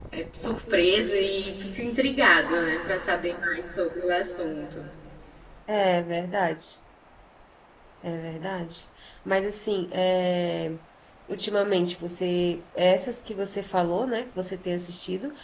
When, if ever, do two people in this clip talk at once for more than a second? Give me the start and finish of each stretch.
none

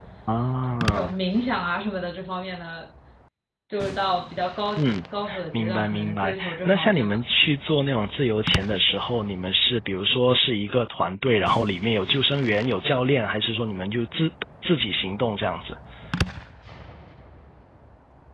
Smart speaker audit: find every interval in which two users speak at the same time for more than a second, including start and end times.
5.5-7.2

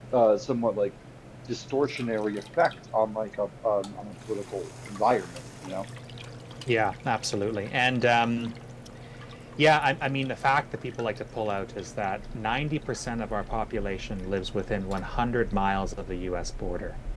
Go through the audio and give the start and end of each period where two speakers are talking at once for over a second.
none

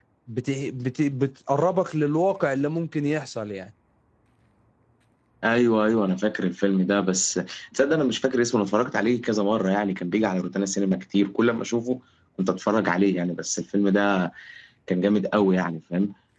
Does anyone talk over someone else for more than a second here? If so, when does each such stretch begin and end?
none

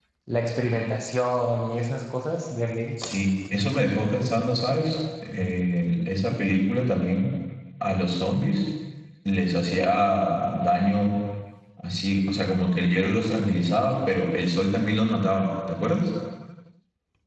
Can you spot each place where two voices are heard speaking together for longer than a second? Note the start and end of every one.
none

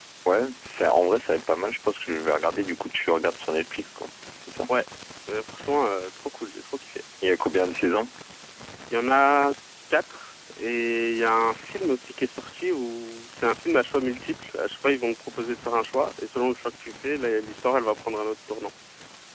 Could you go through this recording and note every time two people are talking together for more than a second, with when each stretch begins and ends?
none

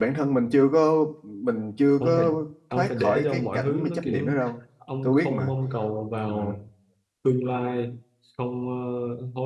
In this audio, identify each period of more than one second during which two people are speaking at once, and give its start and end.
2.7-4.3

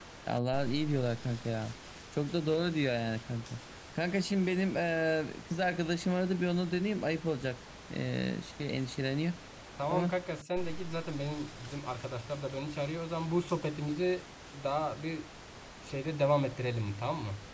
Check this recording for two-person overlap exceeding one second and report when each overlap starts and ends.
none

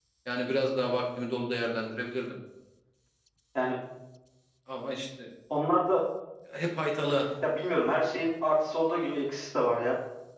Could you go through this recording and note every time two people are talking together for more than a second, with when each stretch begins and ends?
none

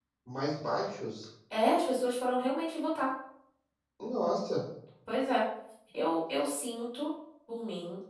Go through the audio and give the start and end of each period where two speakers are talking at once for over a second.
none

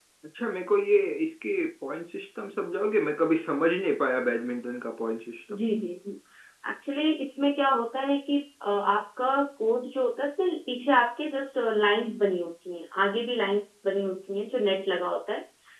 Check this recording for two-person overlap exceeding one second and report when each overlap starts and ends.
none

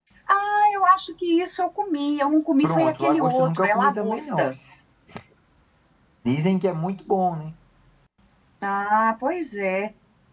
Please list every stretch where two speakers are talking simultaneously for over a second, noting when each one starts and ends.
2.6-4.5

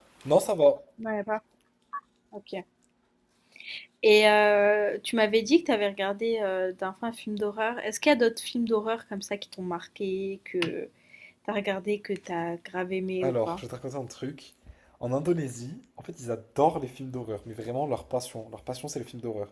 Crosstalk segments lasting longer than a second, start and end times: none

